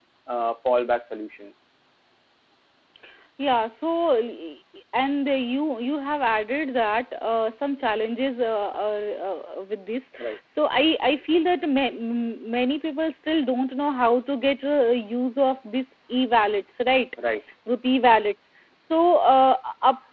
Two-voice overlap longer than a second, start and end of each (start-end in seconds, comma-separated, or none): none